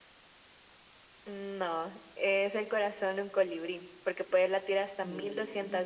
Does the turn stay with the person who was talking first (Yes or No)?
Yes